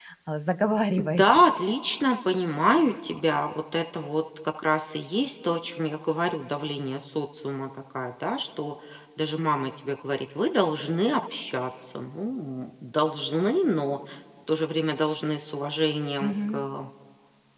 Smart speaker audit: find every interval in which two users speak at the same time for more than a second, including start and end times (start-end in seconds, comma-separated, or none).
none